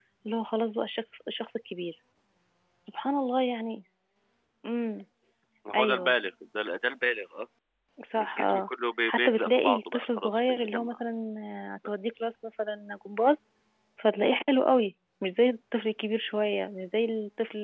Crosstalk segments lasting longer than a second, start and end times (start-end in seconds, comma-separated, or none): 9.1-11.0